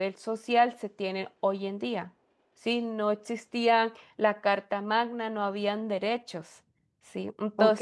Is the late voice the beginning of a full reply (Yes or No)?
Yes